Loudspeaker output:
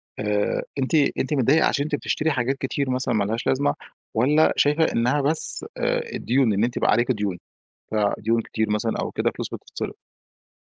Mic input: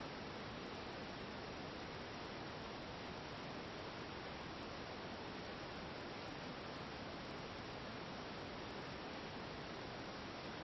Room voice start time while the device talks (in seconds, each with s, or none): none